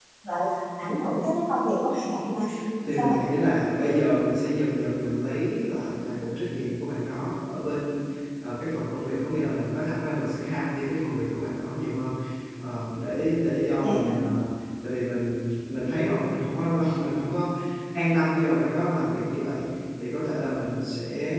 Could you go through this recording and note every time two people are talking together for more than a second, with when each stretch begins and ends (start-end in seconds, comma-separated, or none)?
none